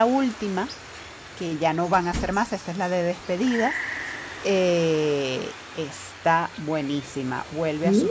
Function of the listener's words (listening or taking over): listening